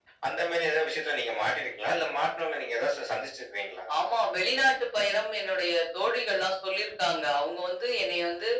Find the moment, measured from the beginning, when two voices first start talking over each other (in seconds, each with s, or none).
none